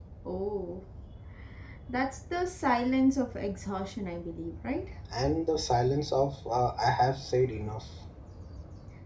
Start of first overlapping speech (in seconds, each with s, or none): none